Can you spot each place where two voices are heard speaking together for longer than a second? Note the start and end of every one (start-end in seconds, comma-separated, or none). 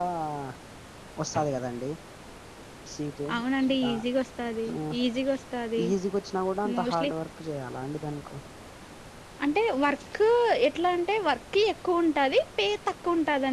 none